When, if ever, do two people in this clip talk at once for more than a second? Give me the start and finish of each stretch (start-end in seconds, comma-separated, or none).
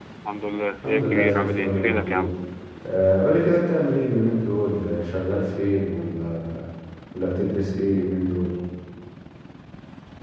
0.8-2.3